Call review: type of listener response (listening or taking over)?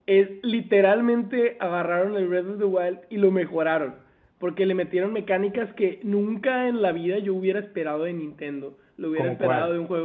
listening